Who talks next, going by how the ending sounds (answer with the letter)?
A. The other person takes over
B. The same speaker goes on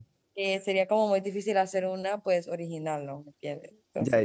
A